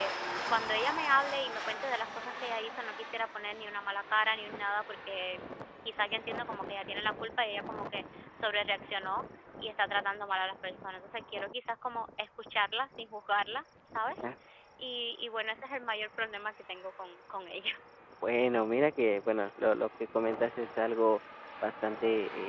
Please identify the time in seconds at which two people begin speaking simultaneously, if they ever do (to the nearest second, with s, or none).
none